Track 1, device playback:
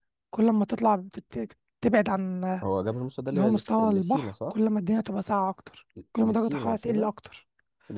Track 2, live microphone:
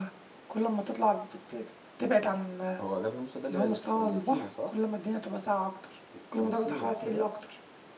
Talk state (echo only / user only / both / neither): echo only